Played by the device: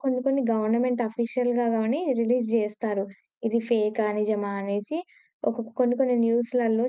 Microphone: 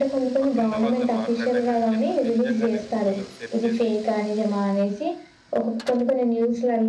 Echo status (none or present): present